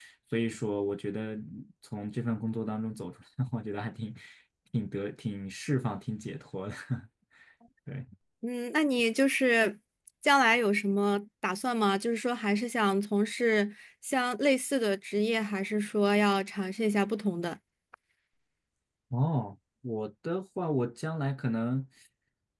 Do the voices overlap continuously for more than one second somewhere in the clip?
No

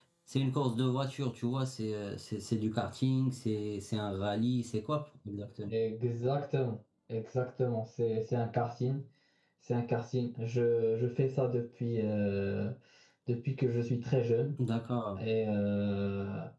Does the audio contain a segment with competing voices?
No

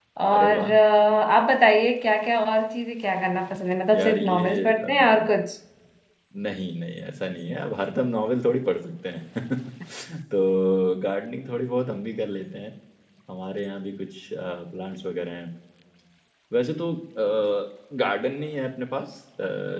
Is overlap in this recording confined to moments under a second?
No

